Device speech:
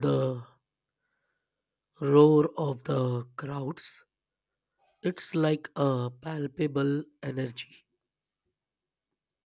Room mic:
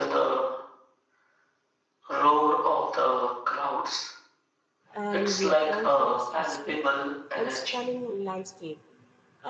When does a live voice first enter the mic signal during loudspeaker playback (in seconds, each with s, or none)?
4.9 s